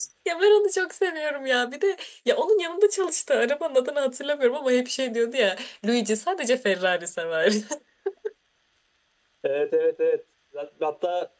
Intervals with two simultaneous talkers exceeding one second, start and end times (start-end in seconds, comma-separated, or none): none